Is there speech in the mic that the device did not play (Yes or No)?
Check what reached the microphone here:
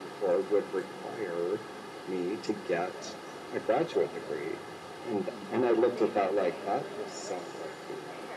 Yes